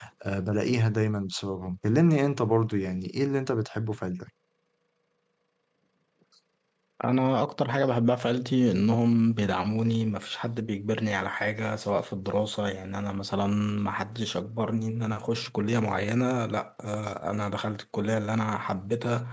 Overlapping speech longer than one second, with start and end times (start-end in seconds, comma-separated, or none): none